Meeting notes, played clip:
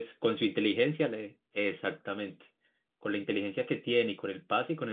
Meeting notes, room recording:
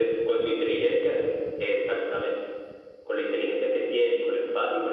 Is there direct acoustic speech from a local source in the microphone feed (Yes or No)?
No